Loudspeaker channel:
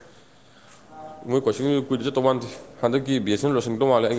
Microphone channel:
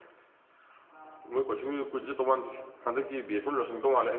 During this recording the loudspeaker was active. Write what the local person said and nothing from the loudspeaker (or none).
none